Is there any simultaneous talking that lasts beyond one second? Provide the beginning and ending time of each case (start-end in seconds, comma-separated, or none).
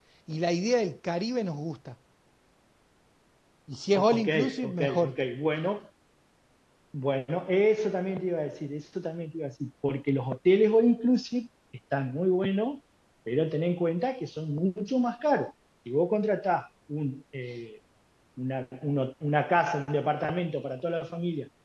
3.9-5.2